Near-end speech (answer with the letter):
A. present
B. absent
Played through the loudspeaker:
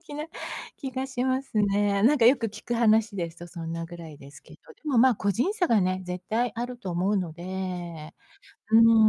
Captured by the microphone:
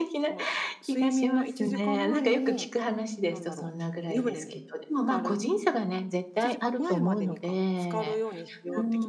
A